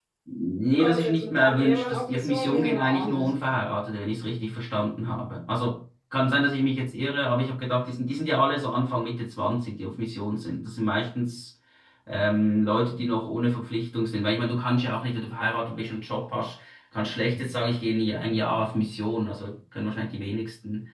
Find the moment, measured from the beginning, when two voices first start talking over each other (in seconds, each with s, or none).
0.7 s